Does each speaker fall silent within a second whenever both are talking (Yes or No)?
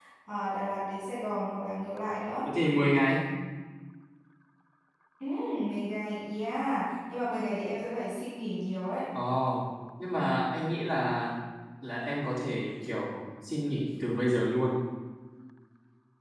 Yes